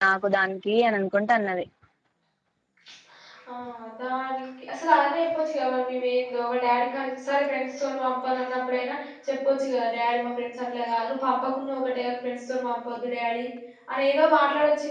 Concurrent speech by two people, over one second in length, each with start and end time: none

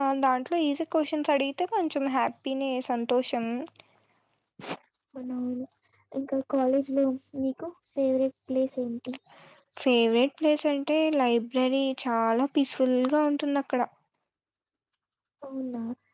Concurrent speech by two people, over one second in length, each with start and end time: none

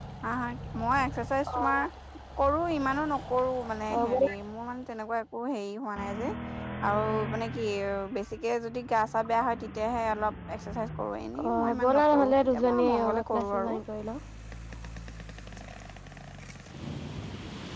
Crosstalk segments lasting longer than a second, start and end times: 11.5-13.8

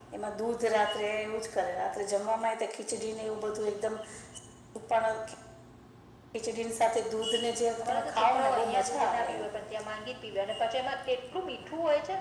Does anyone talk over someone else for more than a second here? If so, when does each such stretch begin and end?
7.8-9.5

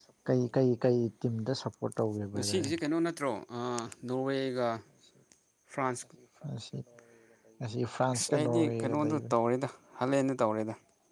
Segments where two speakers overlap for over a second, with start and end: 8.1-9.3

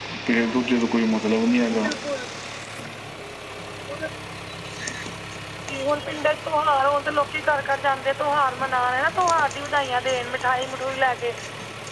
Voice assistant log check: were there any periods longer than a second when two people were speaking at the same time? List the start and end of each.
none

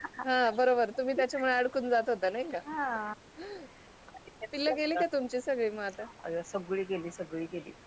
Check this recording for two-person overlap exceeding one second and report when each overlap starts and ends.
none

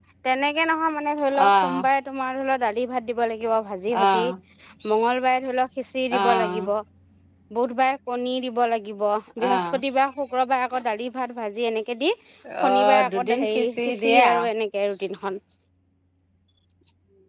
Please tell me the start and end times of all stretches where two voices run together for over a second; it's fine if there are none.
12.7-14.3

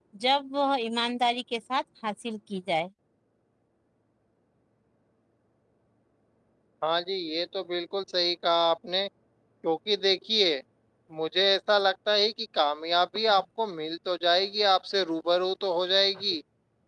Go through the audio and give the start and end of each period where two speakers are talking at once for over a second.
none

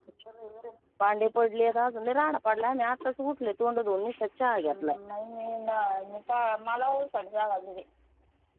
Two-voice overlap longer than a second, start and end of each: none

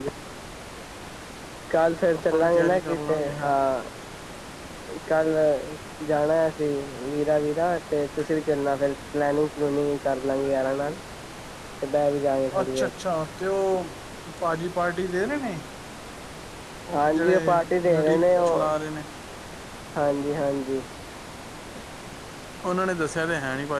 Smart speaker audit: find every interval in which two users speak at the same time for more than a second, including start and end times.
2.2-3.5, 17.1-18.8

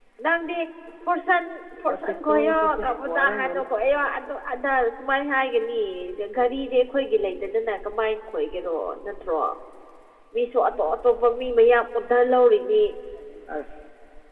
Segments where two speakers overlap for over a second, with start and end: 1.9-3.6

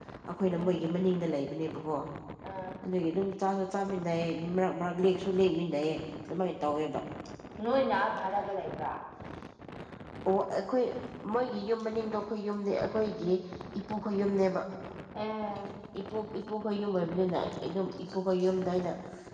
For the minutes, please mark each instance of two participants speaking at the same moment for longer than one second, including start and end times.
none

